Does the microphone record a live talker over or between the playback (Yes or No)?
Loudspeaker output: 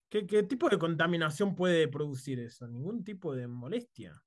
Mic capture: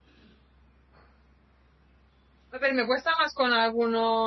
Yes